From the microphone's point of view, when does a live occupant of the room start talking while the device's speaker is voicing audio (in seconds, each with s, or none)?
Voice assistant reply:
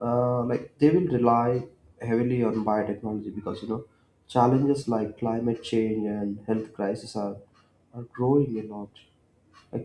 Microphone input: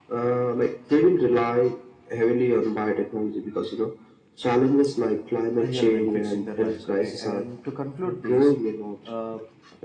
5.6 s